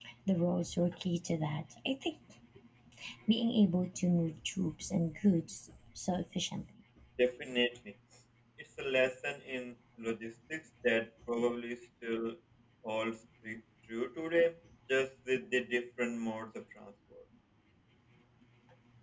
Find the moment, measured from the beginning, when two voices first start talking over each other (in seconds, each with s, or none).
none